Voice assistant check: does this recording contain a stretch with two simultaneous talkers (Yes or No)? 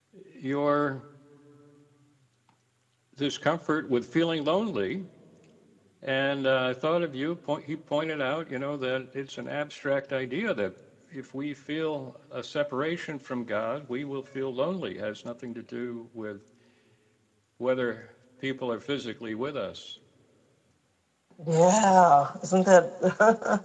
No